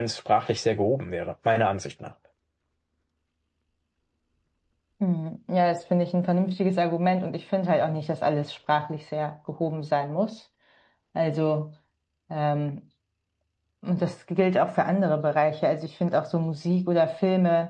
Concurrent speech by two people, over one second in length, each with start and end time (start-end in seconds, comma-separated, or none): none